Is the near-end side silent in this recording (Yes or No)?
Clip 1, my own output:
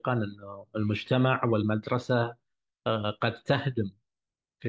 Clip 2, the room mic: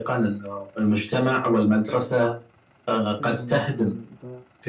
No